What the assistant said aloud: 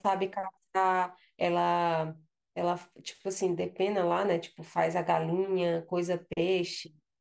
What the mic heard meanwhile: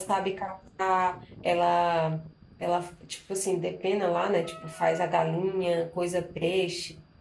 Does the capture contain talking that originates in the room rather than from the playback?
No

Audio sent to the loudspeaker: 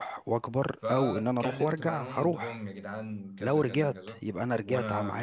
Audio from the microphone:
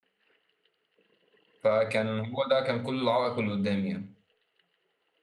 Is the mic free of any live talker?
No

